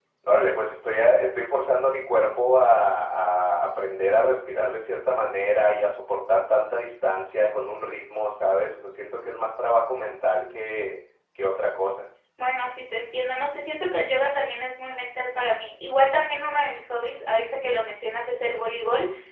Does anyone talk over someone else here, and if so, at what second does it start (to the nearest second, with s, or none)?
none